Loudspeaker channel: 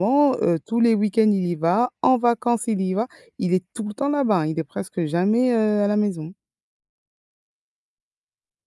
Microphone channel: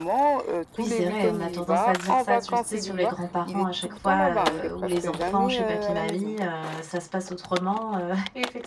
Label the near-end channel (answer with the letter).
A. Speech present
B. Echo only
A